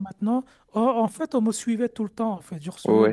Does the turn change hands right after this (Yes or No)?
No